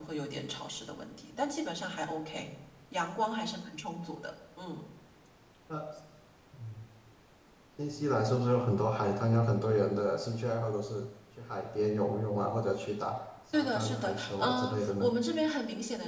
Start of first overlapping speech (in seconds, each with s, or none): 13.5 s